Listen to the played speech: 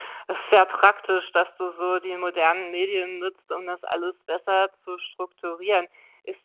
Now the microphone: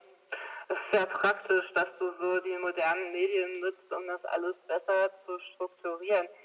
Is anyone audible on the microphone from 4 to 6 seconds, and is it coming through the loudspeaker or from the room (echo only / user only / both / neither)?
echo only